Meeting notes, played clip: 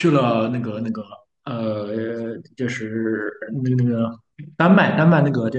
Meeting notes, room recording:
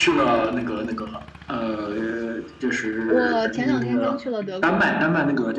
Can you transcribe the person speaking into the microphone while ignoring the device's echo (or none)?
我前两天刚去了德国。